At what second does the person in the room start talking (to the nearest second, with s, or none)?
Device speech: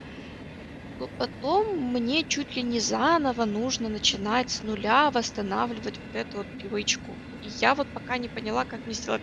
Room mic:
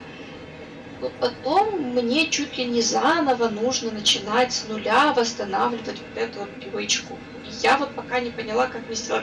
none